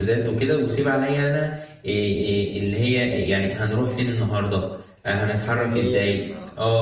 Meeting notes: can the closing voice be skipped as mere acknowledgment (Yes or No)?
Yes